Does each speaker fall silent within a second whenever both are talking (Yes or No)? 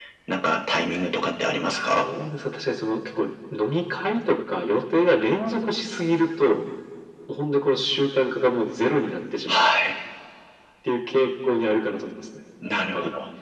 Yes